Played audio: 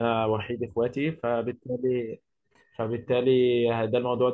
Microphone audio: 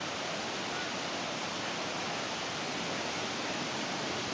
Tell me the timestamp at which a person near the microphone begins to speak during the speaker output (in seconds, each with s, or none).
none